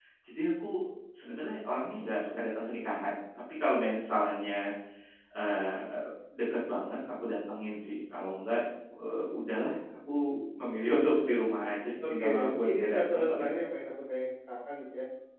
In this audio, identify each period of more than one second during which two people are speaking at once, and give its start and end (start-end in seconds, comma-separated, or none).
12.1-13.5